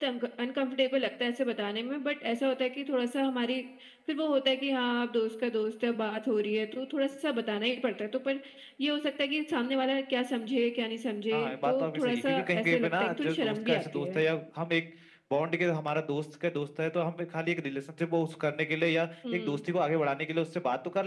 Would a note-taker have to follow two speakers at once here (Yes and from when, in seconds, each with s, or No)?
Yes, from 11.3 s